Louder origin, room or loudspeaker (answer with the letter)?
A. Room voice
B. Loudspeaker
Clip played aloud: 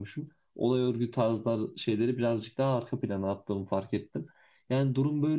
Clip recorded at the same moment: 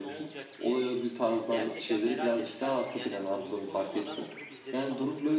B